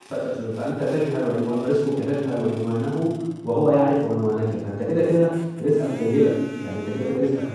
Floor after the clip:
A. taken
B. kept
B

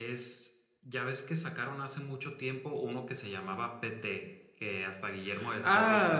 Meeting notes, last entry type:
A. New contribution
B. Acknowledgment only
A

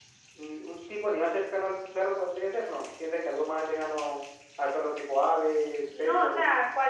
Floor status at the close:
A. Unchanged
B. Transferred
B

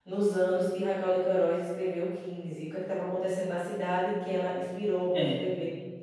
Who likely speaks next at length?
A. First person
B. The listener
A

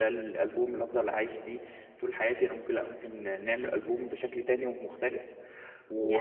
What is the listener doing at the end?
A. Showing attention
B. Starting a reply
A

